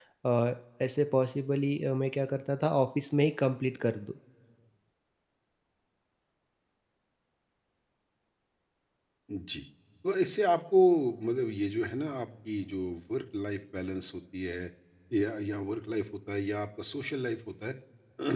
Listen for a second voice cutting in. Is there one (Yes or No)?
No